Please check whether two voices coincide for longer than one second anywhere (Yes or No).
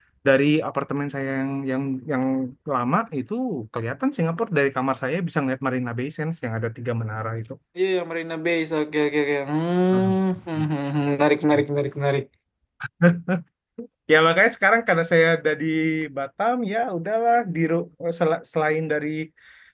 No